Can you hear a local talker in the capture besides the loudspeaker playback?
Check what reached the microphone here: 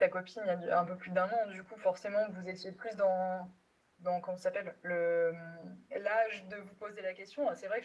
Yes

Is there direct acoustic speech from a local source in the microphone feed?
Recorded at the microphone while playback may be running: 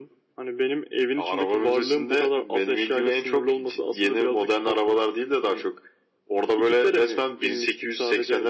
No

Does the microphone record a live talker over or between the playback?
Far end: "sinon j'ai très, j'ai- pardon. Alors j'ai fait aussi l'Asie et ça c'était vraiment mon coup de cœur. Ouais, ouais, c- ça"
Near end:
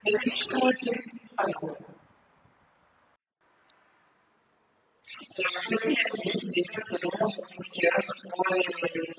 No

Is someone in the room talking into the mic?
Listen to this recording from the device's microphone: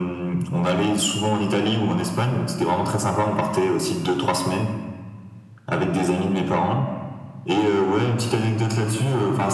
No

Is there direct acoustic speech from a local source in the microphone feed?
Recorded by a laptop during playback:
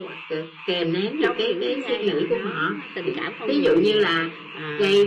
Yes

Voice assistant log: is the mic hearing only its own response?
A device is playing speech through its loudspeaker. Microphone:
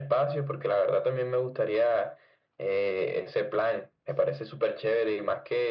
Yes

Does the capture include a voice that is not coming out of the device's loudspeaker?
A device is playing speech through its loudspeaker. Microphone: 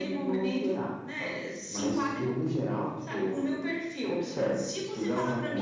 No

